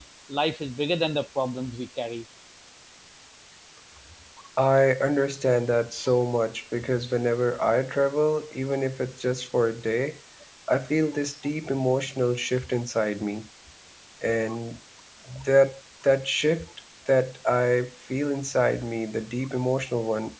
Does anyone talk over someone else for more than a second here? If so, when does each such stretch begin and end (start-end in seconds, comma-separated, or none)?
none